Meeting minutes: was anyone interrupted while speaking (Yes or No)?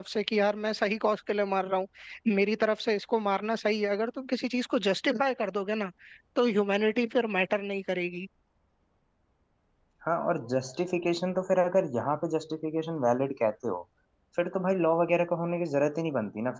No